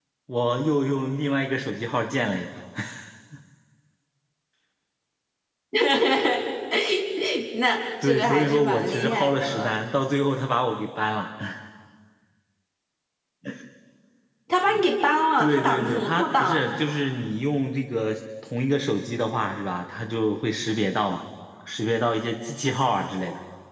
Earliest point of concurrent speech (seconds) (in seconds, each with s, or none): 8.0 s